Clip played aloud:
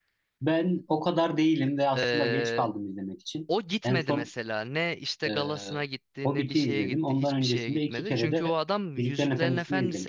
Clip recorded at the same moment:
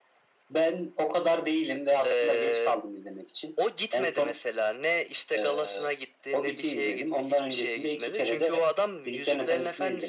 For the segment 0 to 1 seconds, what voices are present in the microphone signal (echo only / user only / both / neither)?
echo only